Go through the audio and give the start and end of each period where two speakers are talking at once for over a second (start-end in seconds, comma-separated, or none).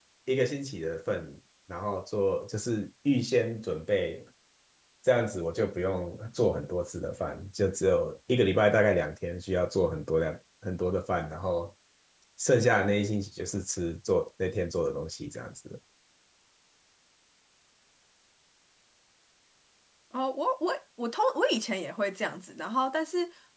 none